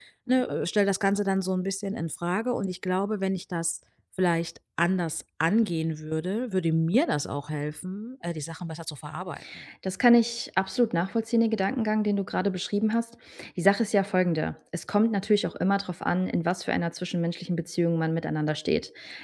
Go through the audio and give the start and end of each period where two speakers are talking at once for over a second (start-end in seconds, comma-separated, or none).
none